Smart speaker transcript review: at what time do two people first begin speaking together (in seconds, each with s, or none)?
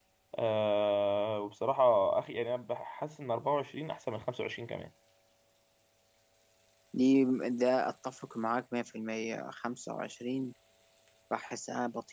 none